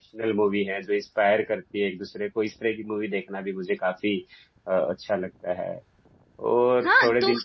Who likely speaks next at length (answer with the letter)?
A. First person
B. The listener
B